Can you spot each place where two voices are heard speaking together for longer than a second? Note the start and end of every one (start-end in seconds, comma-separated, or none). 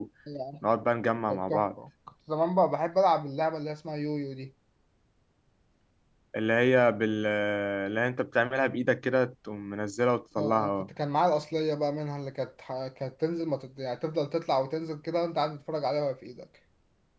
none